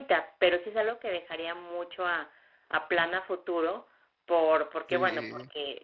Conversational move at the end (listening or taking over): listening